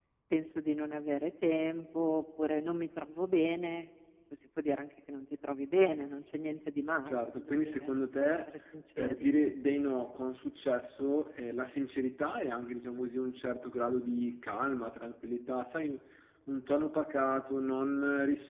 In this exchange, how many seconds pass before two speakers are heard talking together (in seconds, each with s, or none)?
7.1 s